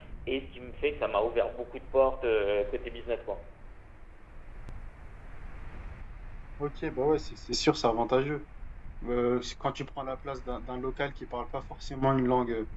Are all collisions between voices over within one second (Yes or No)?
Yes